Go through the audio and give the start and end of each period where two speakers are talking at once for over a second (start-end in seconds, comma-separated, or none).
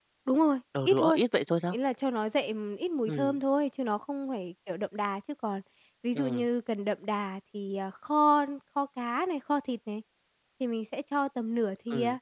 none